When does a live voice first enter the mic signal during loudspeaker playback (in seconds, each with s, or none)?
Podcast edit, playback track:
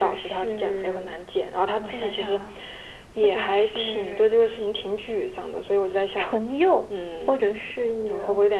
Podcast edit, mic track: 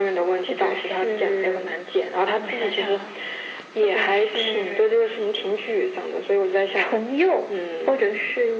none